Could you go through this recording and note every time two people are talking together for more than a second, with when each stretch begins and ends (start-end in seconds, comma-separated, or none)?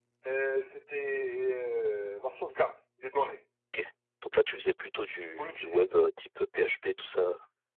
none